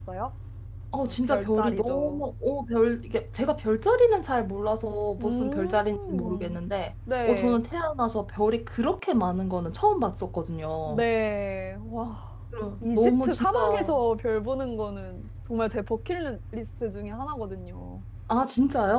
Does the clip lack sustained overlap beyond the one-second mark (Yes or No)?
No